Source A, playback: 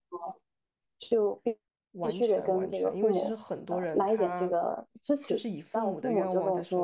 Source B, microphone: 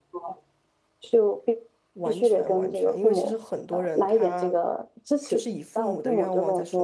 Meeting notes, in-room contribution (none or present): none